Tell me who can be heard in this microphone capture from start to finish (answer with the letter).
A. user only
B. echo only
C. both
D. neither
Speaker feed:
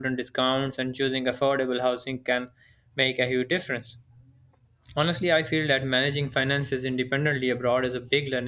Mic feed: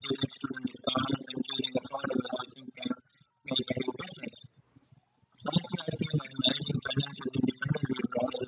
B